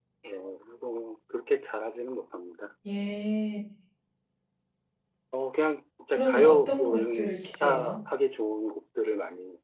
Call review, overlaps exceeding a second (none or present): present